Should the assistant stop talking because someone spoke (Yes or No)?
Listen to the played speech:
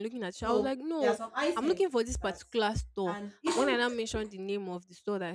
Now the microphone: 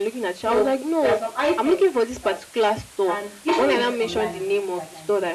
Yes